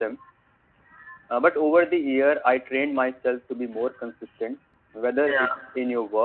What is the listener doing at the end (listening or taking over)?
listening